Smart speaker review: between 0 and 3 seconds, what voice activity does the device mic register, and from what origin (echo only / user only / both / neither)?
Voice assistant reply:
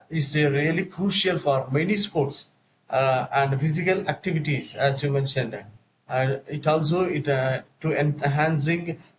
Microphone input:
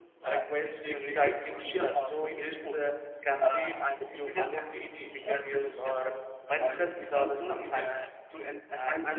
both